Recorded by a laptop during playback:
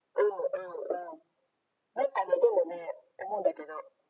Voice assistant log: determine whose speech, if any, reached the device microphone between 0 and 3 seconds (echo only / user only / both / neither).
echo only